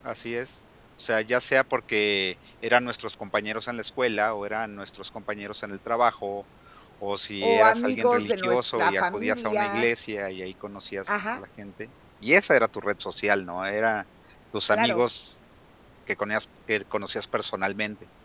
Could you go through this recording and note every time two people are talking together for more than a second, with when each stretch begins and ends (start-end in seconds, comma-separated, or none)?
7.4-9.9